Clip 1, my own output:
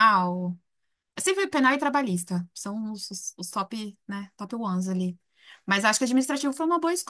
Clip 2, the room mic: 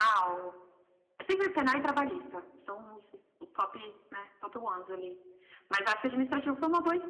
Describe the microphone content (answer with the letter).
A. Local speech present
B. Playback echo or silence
B